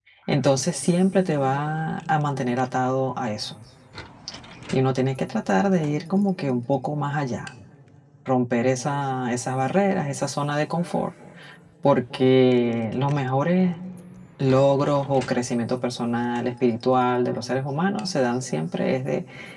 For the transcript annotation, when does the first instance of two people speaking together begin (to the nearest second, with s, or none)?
none